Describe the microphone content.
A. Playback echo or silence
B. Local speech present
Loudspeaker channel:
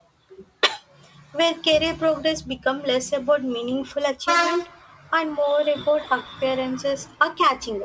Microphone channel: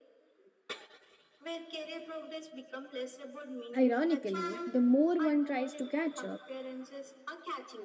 B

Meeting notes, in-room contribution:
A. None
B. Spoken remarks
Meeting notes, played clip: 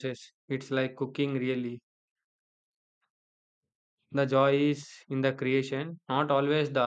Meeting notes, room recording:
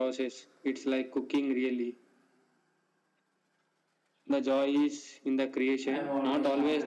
B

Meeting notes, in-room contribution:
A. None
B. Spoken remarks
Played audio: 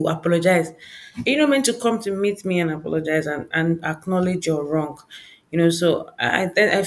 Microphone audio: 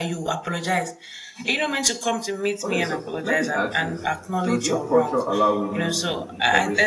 B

